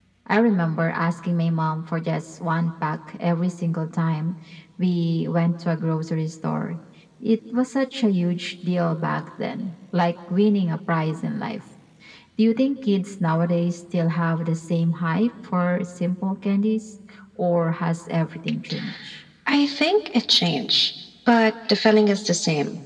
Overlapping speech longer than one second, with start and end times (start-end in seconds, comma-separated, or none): none